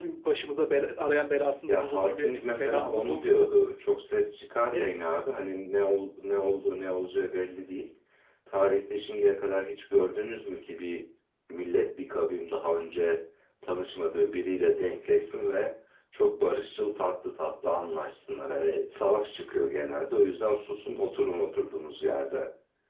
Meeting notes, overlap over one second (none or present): present